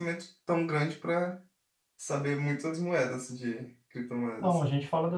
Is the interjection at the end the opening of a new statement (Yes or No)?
Yes